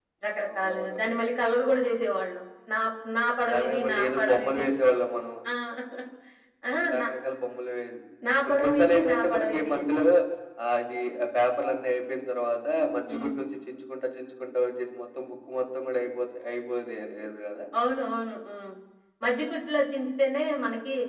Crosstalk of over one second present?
Yes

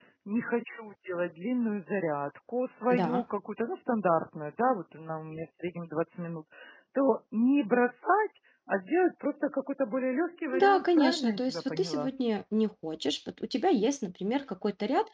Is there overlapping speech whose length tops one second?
Yes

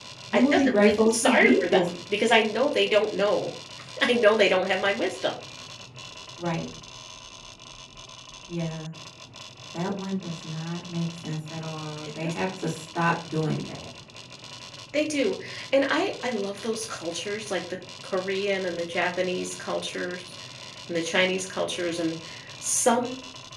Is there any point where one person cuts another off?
Yes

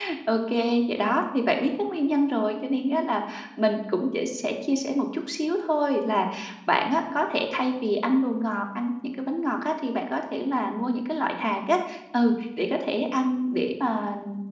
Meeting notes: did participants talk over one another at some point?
No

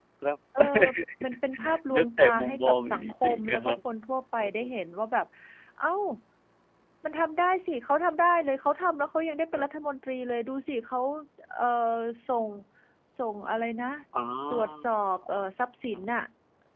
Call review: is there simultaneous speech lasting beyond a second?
Yes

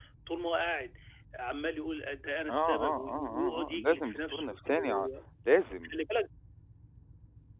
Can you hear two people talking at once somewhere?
Yes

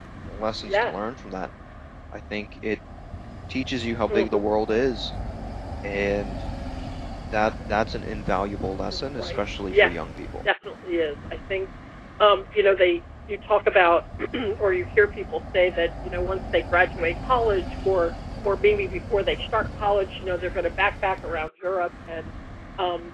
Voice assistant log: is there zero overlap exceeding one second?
No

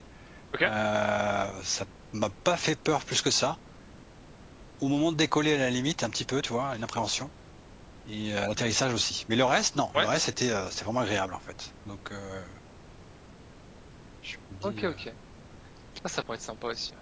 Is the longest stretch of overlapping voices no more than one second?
Yes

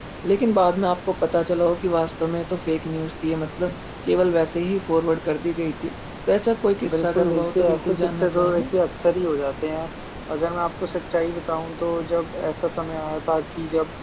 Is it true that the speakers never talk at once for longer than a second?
No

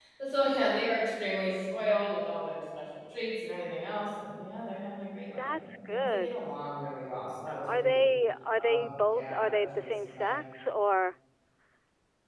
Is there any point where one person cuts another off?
Yes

